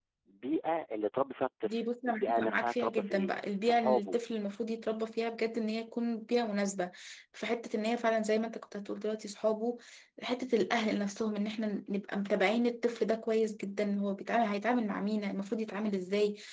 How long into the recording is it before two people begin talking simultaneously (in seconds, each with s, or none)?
1.6 s